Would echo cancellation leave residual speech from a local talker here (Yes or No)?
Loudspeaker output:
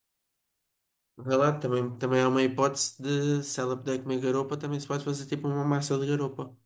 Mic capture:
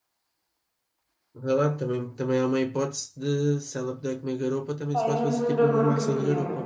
Yes